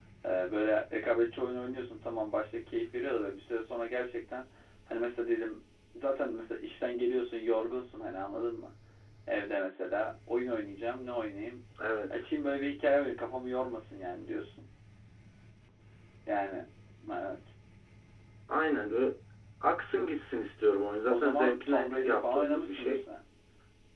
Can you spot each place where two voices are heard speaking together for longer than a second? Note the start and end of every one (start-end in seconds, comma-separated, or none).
21.1-23.0